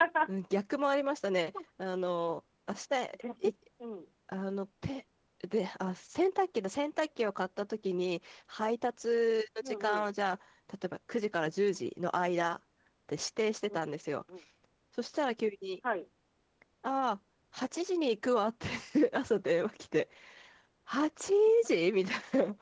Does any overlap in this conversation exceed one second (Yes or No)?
No